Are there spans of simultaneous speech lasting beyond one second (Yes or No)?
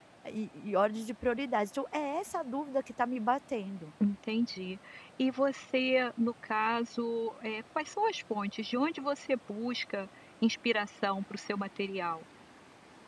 No